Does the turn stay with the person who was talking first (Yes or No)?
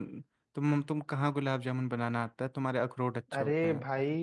No